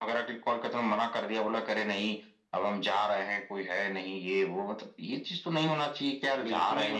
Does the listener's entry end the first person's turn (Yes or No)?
Yes